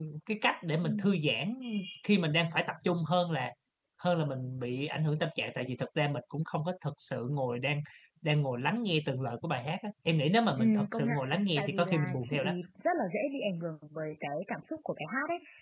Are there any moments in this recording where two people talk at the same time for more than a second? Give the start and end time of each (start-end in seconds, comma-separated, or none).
10.6-12.5